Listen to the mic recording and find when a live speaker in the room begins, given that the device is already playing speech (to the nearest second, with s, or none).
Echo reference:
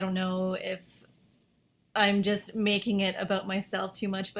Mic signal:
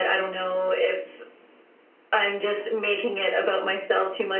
none